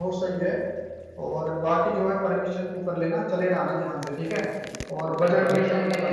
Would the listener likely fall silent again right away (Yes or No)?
No